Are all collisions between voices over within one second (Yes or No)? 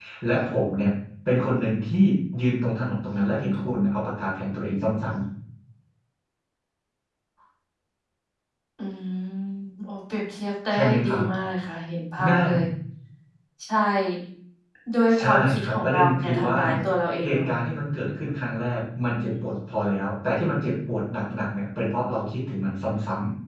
No